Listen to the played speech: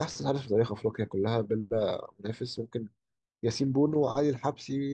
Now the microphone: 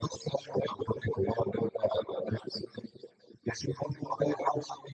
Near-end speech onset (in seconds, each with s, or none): none